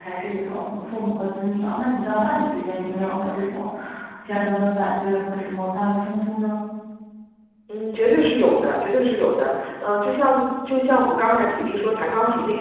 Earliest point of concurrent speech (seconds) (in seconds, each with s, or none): none